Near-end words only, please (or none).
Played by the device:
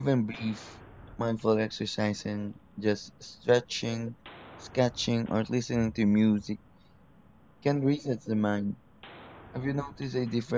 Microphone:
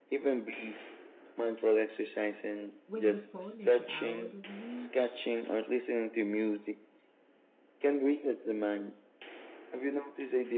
when the phone is out of reach.